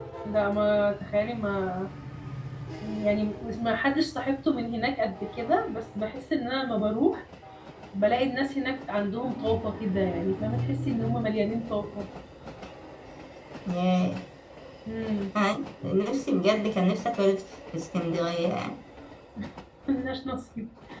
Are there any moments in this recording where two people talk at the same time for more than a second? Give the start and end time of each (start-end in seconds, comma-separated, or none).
none